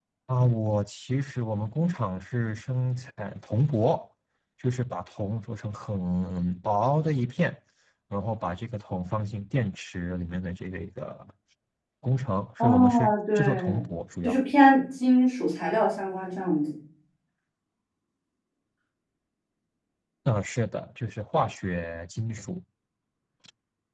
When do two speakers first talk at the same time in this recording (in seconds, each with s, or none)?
12.6 s